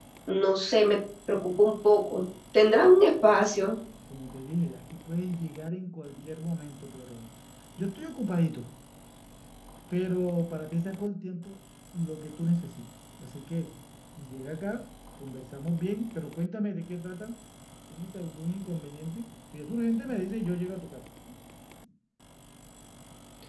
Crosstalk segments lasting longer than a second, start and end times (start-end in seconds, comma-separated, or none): none